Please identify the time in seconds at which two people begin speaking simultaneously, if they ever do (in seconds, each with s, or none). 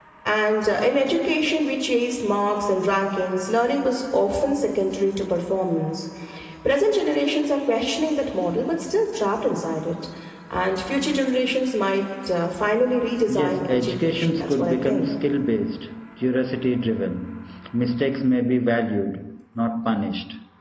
13.3 s